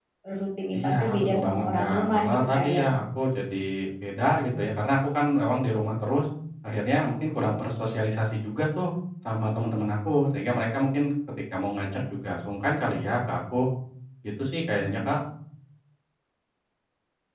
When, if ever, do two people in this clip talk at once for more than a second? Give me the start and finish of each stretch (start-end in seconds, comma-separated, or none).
0.7-2.9